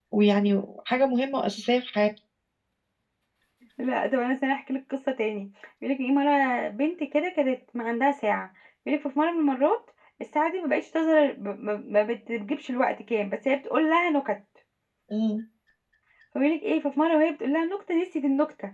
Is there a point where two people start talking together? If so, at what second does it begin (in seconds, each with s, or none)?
none